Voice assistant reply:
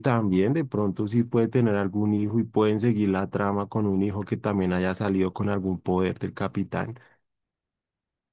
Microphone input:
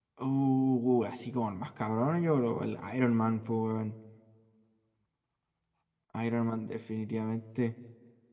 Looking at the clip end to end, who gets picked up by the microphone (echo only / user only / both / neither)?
user only